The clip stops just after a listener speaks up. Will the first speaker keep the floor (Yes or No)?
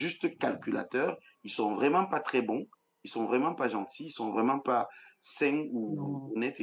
Yes